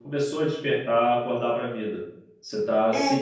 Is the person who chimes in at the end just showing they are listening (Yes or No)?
Yes